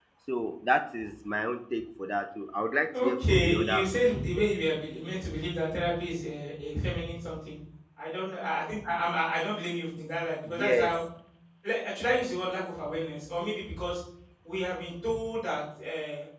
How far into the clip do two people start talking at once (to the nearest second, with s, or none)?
3 s